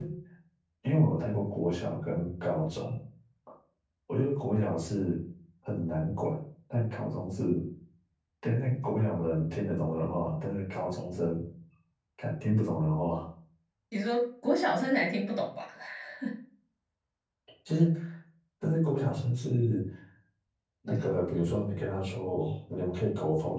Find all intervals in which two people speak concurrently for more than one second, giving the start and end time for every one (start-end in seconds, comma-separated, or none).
none